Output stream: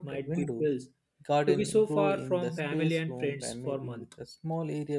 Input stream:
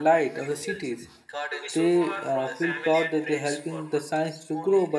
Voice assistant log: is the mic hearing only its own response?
No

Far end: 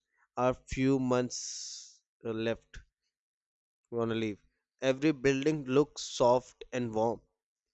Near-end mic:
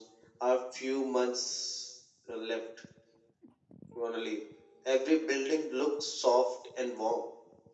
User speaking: No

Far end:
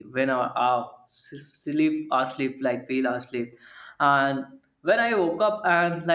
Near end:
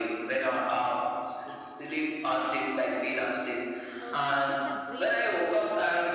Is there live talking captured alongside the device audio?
Yes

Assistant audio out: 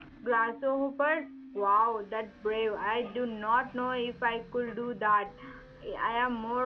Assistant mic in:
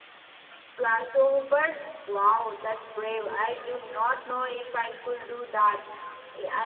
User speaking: No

